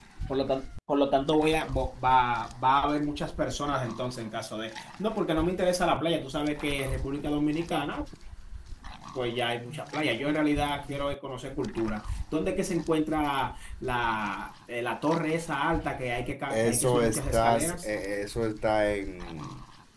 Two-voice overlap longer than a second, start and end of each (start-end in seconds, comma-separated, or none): 16.5-17.9